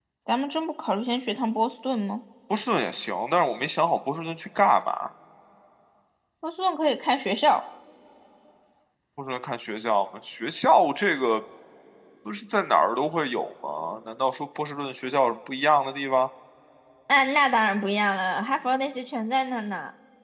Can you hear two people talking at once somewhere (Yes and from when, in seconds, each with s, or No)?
No